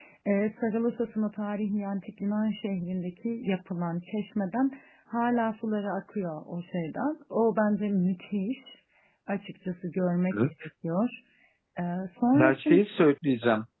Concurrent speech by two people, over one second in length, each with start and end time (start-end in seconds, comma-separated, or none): none